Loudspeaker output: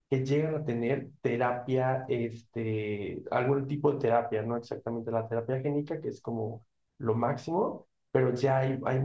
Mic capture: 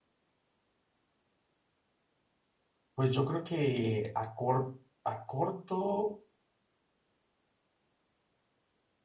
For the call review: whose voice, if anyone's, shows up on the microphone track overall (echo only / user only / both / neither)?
user only